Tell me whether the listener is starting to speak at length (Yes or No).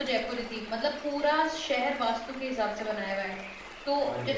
No